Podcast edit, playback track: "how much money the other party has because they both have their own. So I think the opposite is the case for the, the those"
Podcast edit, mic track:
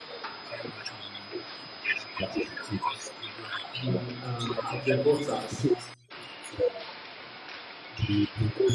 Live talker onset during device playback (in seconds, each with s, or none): 3.8 s